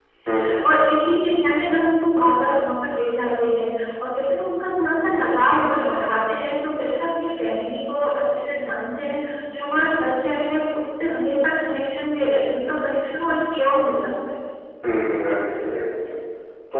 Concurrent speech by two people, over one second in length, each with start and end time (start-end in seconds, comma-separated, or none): none